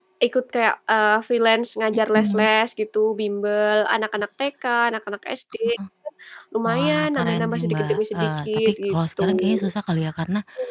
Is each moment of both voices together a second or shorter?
No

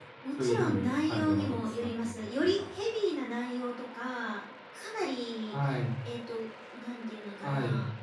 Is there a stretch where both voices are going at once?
Yes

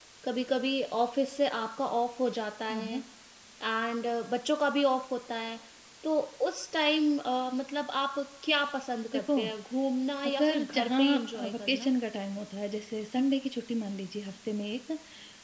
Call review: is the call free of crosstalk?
No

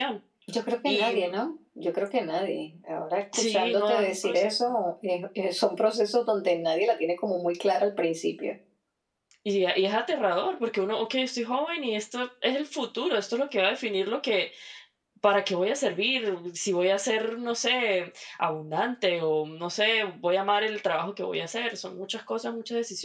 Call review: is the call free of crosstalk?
No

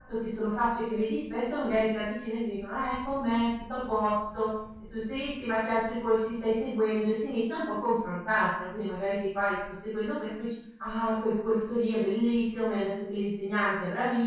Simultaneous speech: No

